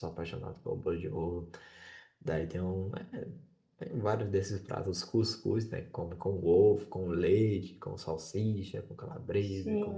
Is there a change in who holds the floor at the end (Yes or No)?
Yes